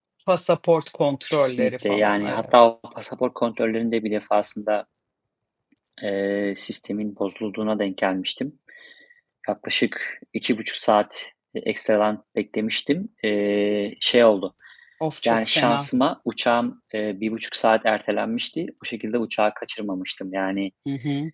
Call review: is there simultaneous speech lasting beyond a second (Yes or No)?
Yes